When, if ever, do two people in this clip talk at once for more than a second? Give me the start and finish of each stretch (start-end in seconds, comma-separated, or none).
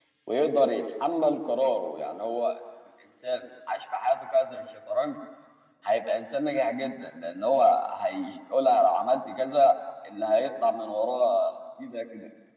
none